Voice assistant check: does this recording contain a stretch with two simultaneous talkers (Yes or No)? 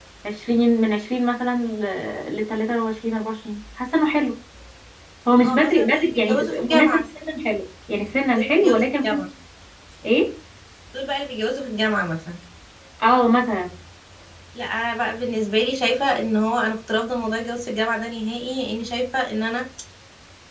Yes